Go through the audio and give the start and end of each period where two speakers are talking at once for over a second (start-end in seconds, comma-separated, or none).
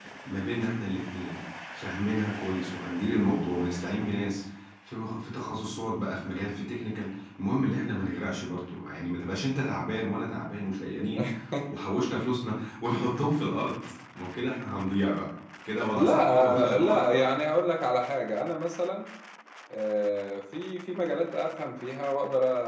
15.9-17.2